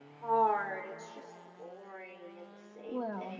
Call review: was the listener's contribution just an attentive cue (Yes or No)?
No